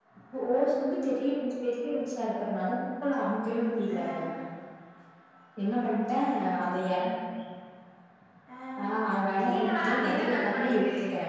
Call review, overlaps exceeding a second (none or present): present